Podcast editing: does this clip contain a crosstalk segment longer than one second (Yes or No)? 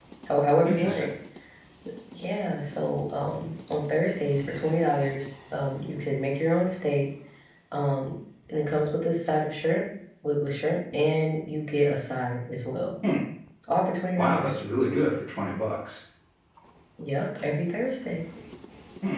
No